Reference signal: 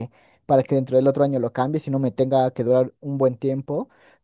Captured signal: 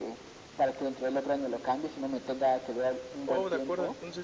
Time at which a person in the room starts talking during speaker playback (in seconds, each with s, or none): 3.2 s